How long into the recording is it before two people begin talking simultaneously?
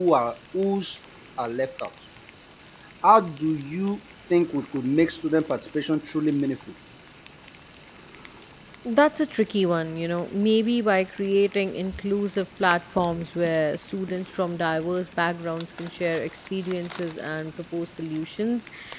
none

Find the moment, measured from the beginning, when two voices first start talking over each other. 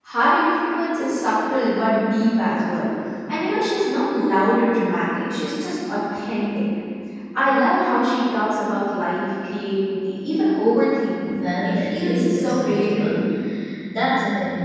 11 s

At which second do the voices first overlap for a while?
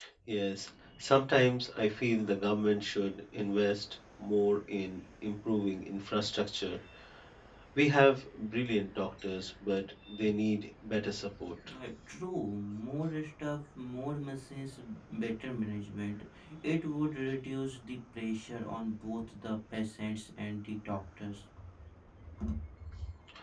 none

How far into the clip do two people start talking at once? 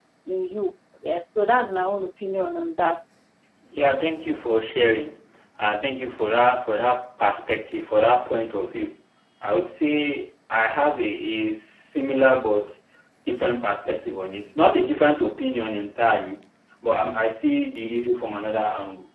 none

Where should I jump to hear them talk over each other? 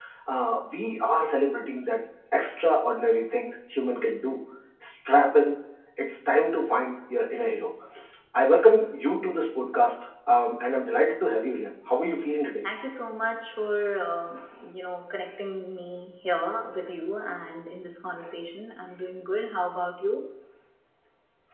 none

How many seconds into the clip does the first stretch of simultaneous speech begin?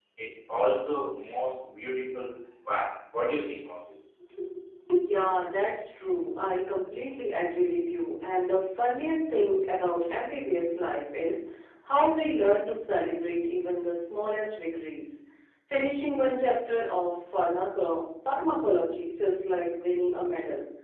none

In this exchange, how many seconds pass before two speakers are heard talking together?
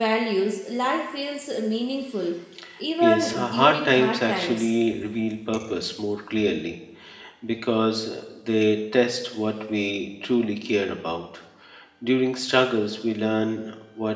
3 s

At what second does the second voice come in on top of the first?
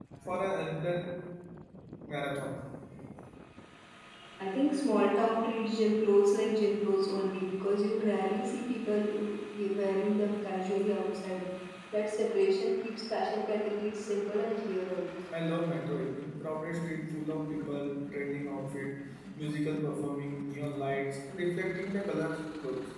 none

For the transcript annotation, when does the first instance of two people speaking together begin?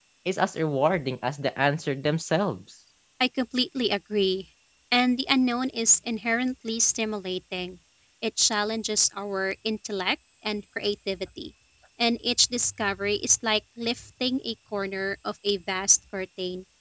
none

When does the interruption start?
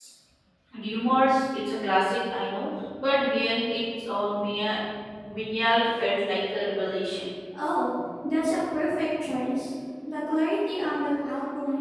none

